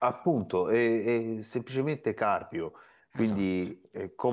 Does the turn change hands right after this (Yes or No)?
No